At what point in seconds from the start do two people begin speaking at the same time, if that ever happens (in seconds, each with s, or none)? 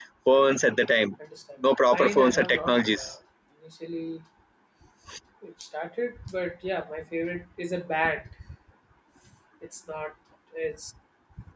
1.8 s